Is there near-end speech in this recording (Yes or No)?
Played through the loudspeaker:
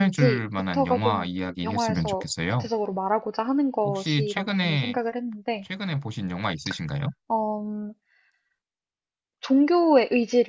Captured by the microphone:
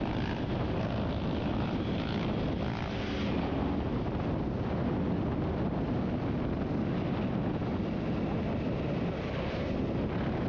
No